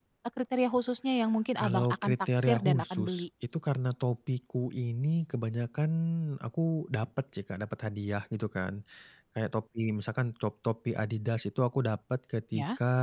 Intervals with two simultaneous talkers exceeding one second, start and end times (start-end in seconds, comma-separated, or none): 1.6-3.2